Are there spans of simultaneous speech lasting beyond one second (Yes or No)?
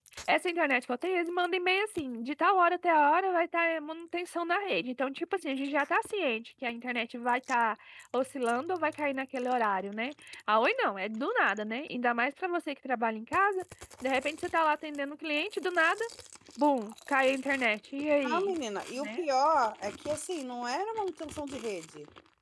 No